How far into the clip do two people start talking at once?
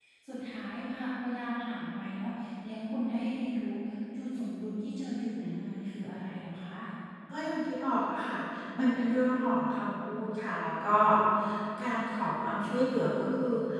none

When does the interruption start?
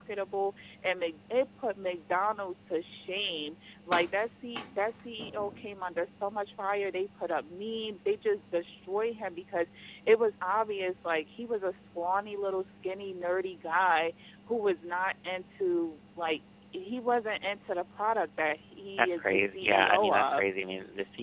19 s

